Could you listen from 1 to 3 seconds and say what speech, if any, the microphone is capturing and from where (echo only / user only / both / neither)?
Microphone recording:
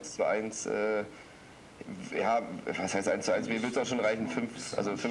echo only